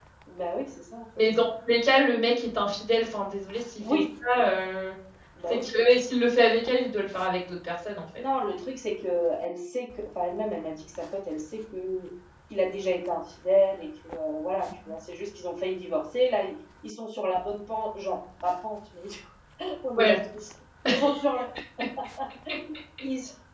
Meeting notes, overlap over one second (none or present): none